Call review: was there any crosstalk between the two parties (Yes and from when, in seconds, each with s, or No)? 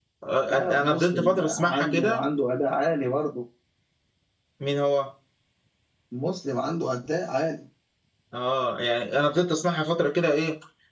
Yes, from 0.5 s